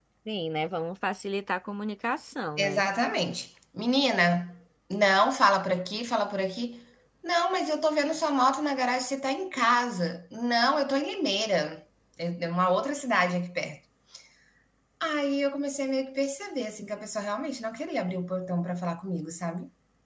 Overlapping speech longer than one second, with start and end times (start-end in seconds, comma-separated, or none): none